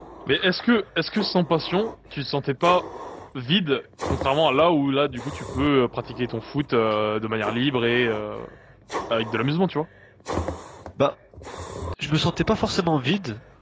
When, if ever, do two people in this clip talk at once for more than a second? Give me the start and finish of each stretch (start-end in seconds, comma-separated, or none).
none